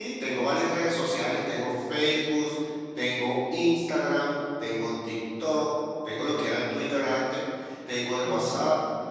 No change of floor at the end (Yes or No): Yes